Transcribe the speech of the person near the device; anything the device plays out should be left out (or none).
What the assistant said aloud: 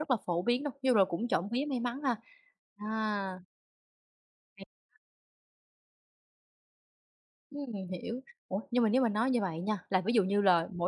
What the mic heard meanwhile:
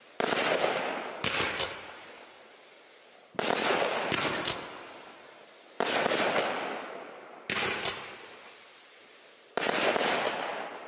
none